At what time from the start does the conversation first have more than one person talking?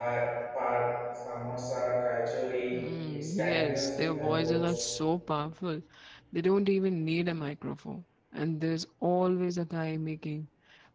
3 s

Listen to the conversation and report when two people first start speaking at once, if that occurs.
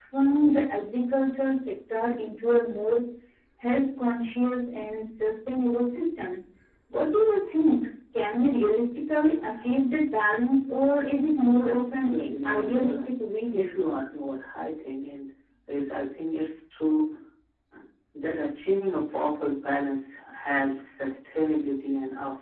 11 s

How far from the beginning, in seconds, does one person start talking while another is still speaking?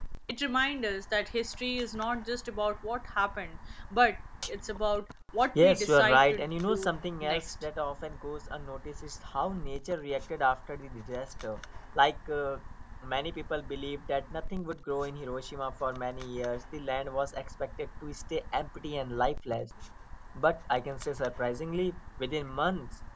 6 s

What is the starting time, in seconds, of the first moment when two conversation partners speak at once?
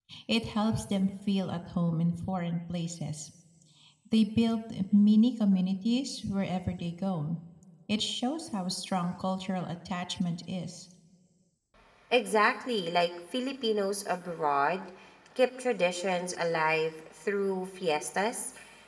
none

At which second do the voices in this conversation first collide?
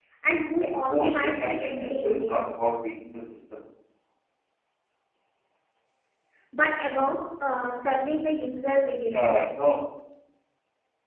1 s

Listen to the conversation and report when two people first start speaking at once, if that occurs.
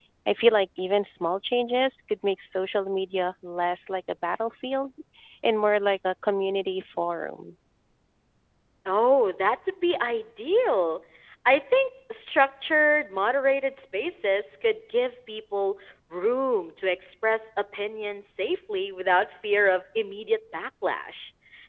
none

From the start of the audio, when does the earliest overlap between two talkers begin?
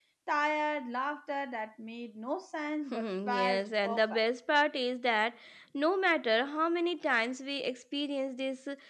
3 s

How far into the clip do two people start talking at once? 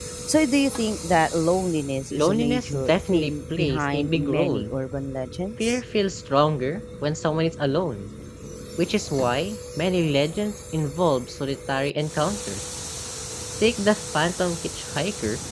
2 s

